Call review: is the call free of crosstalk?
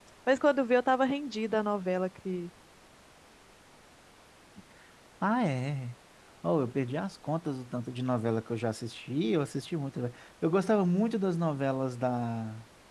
Yes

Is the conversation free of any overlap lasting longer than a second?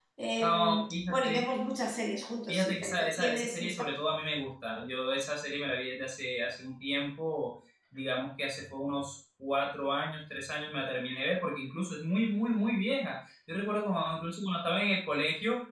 No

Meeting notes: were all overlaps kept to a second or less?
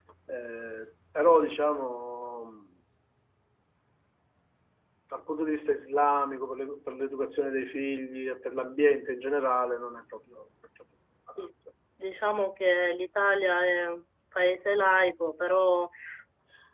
Yes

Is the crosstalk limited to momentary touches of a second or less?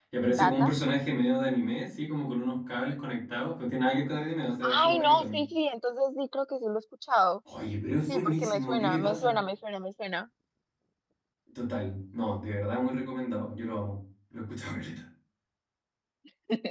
No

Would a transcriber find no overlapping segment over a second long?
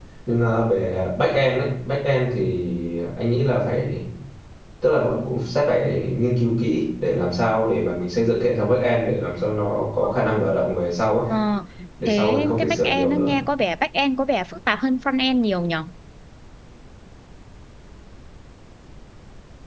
No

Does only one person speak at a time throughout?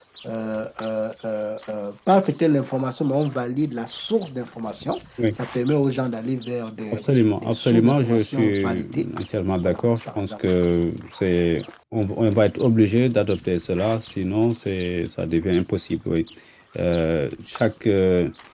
No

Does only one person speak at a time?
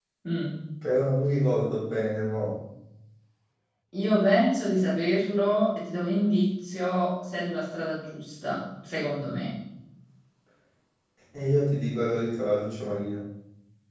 Yes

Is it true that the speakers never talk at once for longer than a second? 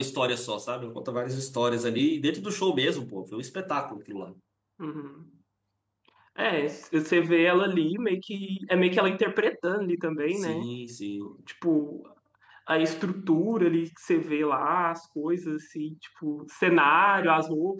Yes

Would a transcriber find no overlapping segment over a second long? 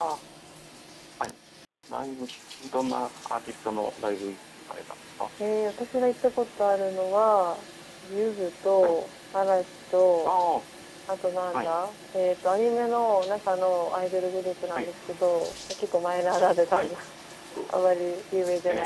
Yes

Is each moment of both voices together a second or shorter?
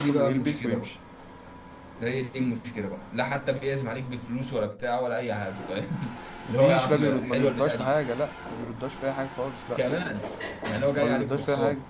No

